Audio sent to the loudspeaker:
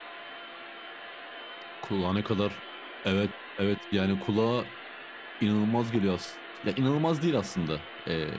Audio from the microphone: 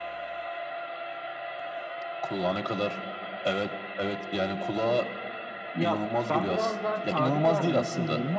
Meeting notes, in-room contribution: present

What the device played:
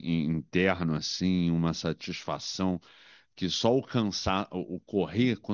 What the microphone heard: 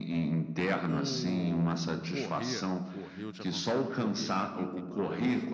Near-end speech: present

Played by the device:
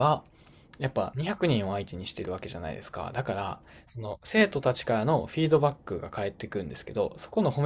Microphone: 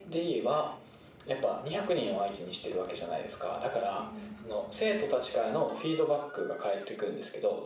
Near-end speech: present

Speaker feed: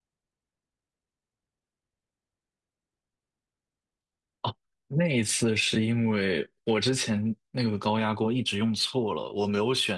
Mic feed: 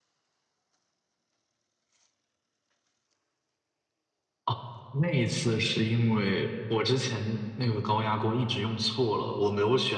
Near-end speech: none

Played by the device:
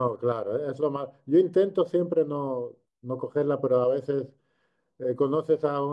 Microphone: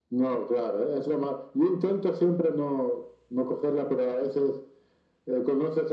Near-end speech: none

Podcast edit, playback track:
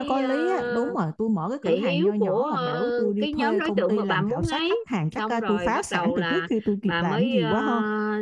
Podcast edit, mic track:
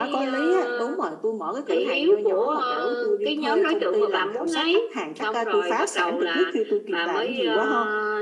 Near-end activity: none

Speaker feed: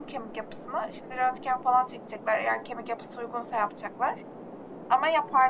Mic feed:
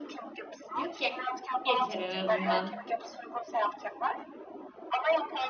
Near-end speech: present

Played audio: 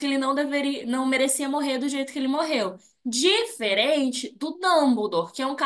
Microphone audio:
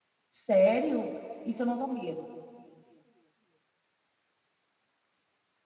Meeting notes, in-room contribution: present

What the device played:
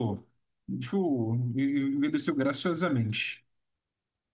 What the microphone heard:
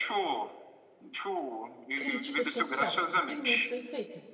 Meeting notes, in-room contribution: present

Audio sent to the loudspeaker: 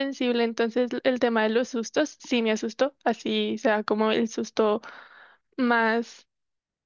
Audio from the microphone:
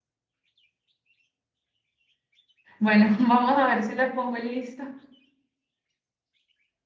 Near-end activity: present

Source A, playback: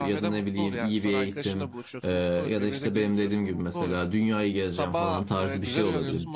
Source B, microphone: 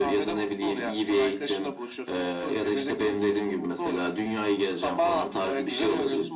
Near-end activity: none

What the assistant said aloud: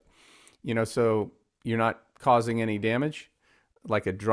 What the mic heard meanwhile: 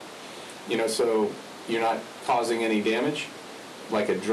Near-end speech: none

